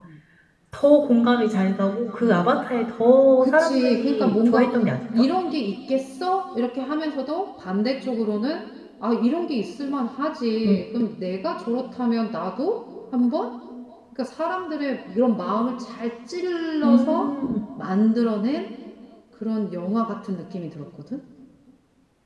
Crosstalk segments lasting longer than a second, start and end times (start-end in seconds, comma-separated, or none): 3.4-4.7